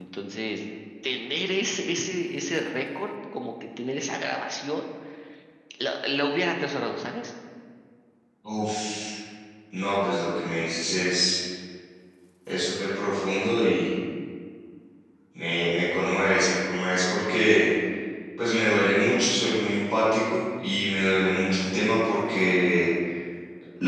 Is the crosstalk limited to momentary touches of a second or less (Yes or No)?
Yes